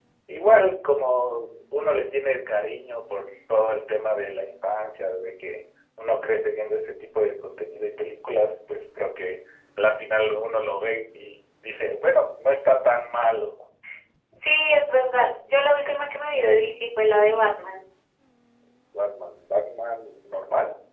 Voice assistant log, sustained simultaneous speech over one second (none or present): none